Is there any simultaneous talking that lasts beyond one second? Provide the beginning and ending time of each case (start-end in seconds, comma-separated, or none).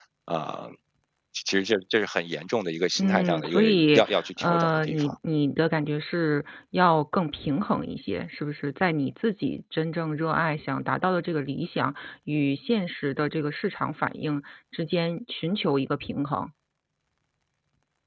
3.0-5.1